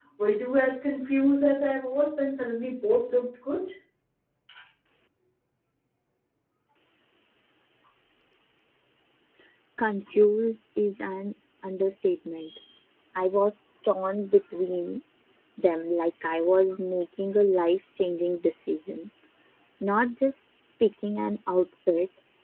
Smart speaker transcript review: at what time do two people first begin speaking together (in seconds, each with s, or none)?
none